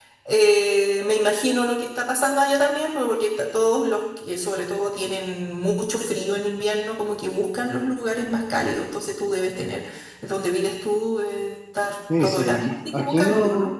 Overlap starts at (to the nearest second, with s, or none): 12 s